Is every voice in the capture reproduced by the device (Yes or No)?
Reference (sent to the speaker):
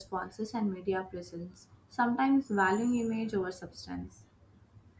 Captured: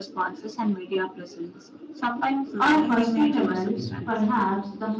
No